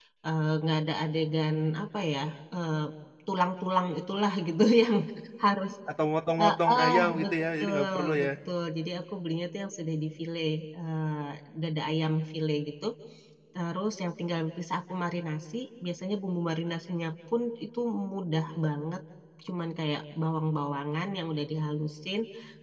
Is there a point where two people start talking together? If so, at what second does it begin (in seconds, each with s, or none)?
6.4 s